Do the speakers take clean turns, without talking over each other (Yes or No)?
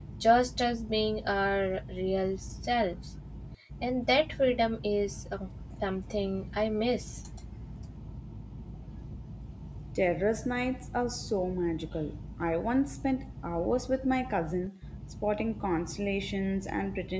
Yes